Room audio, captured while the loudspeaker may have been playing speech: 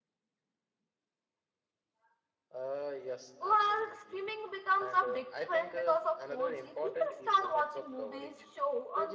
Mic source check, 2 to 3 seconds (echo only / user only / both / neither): echo only